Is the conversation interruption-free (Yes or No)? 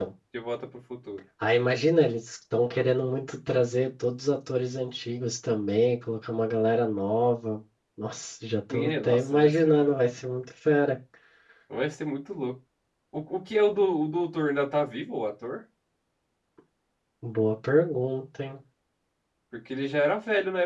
No